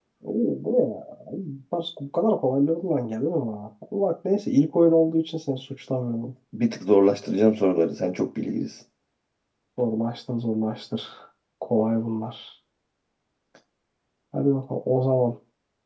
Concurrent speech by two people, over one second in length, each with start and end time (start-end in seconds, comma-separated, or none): none